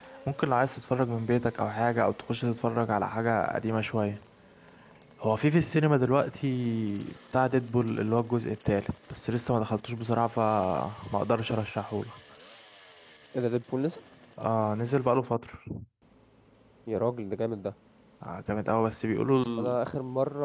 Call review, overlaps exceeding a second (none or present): none